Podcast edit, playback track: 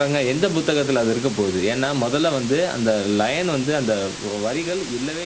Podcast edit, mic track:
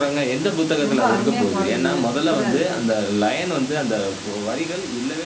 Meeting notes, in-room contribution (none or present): present